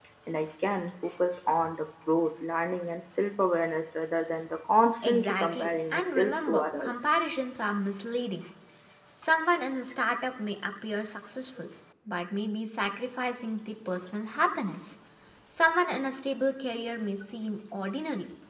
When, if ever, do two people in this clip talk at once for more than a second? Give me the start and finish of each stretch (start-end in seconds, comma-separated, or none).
5.0-6.9